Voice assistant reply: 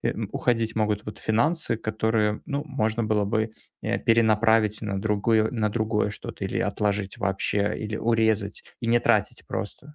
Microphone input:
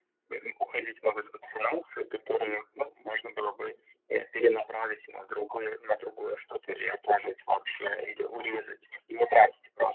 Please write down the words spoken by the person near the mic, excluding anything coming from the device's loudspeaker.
none

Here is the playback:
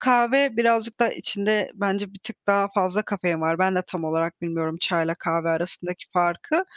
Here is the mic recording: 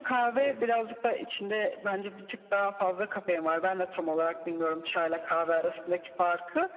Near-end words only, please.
Evet.

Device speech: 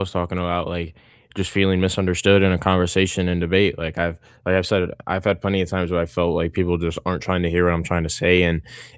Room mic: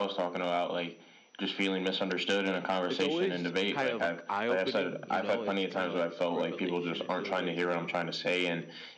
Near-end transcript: it's always kind of, like, eye-opening, you know, it's kinda like a revelation, it feels like to me,

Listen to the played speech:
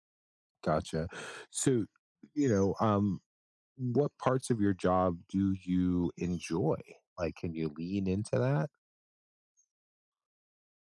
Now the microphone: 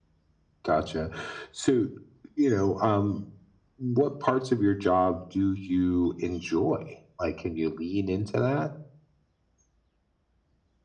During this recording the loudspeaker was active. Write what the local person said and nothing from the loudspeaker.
none

